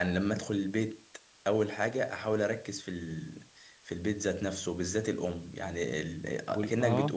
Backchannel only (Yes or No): Yes